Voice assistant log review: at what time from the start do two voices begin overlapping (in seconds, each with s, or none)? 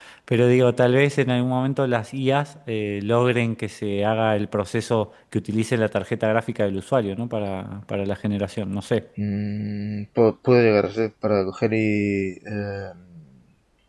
none